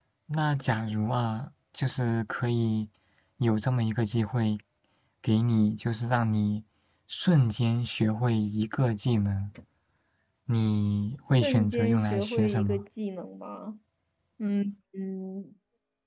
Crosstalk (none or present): present